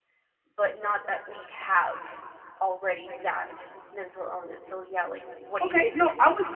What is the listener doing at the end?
taking over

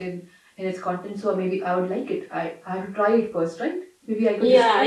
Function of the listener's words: taking over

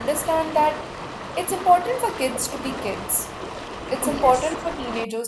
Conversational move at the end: listening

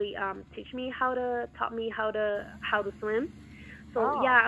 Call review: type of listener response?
listening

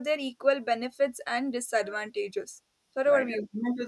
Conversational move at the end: taking over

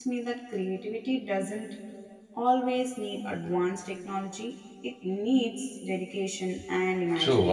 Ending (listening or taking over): taking over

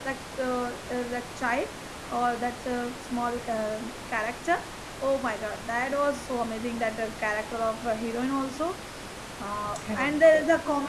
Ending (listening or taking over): listening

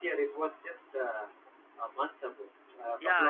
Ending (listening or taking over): taking over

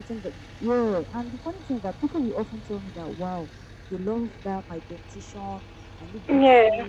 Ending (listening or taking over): listening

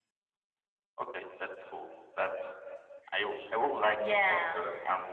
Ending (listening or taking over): listening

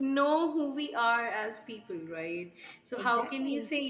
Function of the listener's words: listening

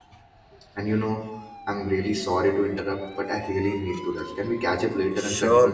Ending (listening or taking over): taking over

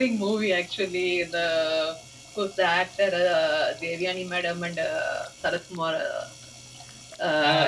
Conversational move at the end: taking over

